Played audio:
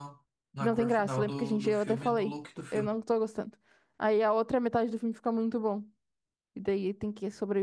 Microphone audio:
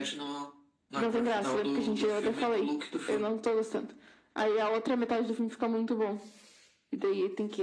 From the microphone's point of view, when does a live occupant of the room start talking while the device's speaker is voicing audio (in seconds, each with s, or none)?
none